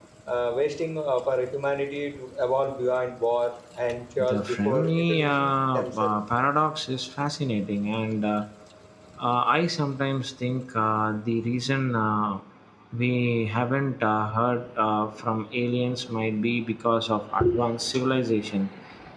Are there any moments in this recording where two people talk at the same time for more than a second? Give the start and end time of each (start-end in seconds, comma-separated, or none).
4.2-6.2